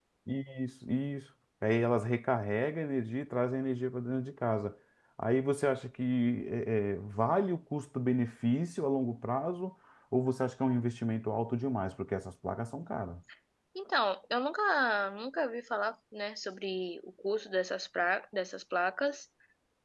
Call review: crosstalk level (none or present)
none